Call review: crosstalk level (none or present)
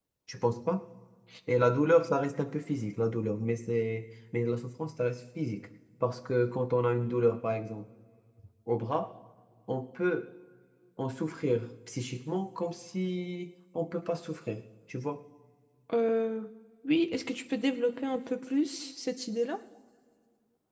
none